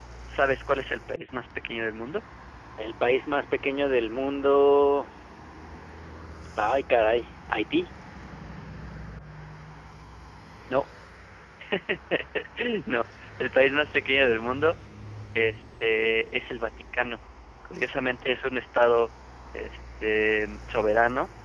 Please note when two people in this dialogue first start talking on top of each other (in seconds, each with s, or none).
none